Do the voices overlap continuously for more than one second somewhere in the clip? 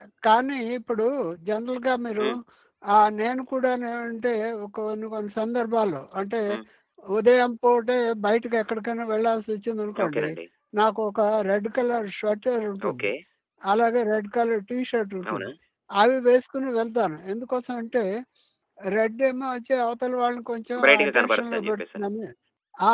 Yes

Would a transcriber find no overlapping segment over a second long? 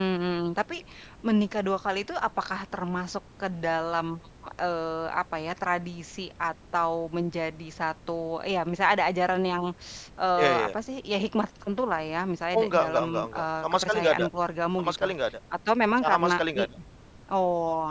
No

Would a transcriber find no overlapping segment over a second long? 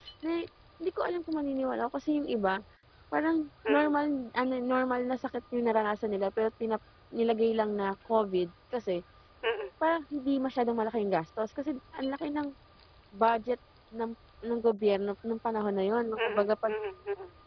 Yes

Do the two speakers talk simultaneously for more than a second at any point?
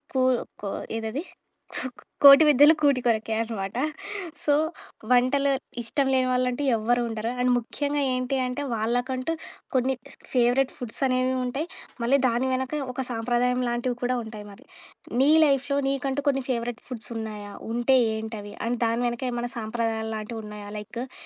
No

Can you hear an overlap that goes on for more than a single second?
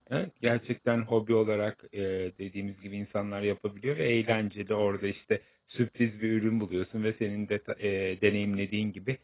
No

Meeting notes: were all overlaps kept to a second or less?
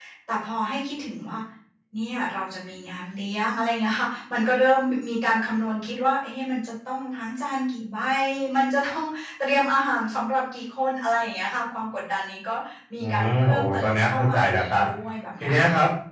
No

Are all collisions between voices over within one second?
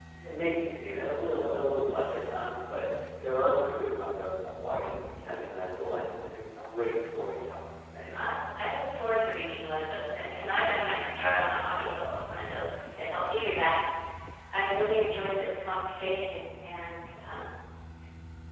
Yes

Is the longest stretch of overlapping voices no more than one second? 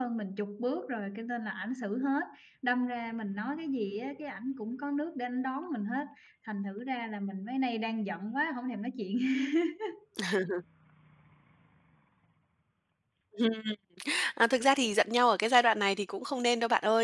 Yes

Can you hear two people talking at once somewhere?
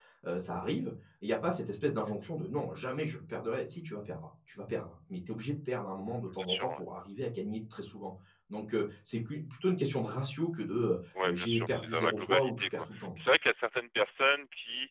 Yes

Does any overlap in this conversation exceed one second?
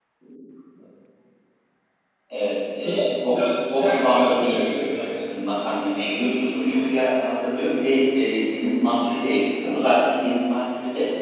Yes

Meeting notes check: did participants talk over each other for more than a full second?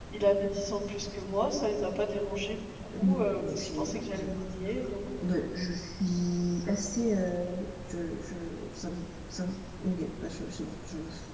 Yes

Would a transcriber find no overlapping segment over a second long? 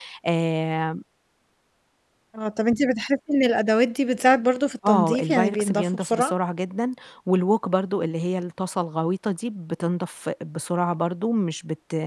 No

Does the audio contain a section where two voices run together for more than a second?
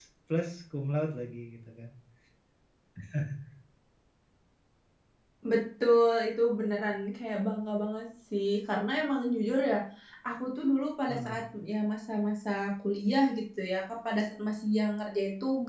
No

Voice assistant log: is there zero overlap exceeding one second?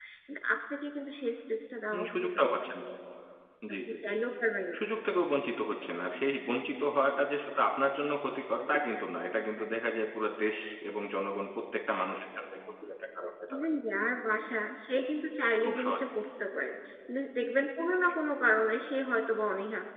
Yes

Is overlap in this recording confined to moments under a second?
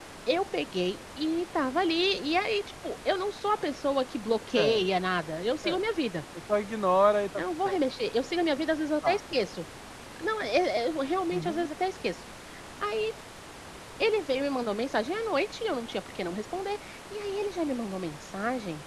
Yes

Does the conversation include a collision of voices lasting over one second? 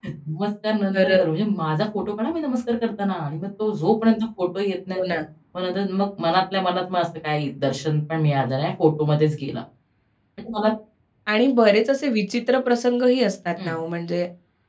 No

